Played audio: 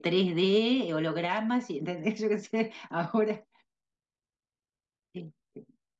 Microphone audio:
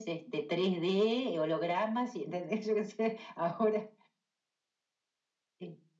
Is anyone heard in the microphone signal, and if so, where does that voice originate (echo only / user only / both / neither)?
echo only